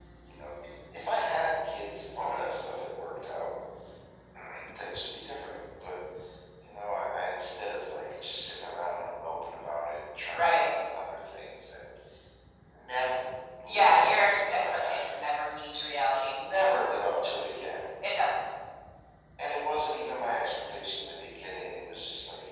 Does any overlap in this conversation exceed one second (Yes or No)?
Yes